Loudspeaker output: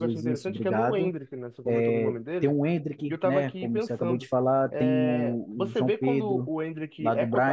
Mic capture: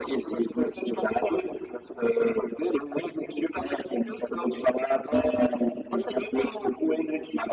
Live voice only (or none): none